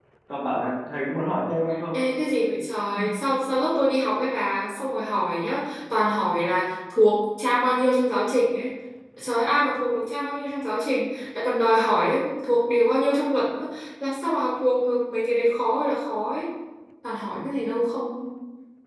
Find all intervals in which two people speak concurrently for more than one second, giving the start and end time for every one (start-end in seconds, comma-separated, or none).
none